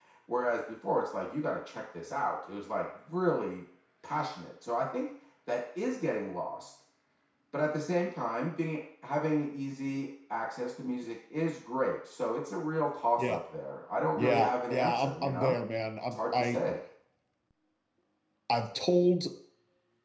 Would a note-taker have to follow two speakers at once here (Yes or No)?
Yes